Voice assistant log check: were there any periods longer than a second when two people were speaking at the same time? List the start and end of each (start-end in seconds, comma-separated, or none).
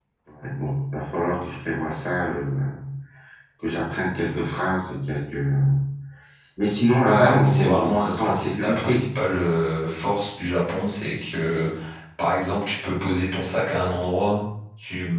7.0-9.0